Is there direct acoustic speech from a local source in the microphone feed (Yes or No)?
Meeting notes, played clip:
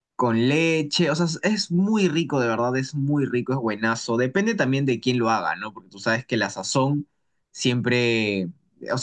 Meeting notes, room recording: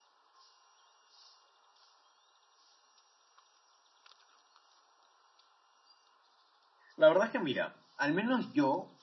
Yes